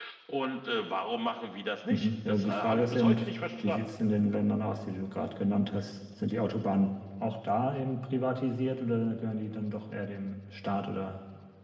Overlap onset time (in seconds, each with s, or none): 1.9 s